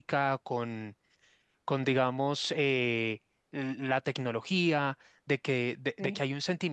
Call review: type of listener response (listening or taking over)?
listening